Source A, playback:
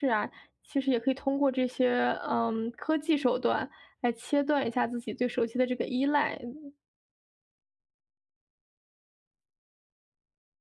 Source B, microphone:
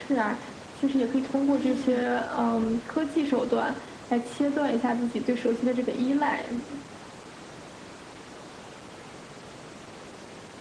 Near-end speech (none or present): present